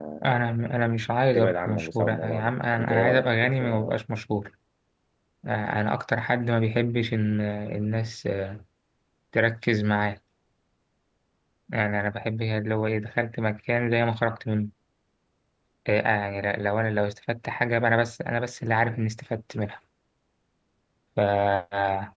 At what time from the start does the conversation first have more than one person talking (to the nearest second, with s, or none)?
1 s